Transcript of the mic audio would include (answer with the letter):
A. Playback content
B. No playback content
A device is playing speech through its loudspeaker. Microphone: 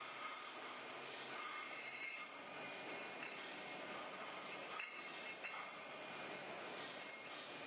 B